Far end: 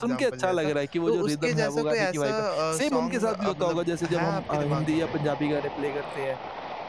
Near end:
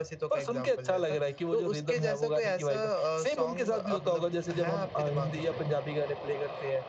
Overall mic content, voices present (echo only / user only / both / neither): echo only